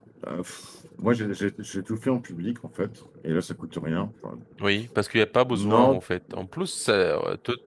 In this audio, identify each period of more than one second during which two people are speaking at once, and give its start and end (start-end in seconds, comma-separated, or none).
none